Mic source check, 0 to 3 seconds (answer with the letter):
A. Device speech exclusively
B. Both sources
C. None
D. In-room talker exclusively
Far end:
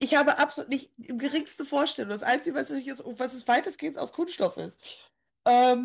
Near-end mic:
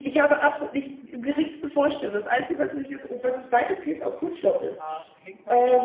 A